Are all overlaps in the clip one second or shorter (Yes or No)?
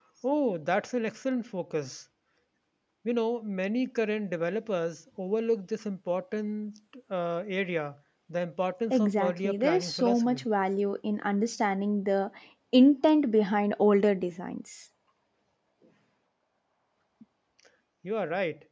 No